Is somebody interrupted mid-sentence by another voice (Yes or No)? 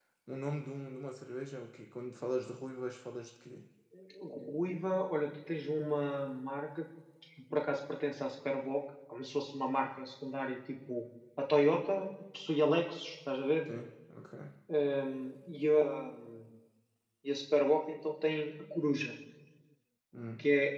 No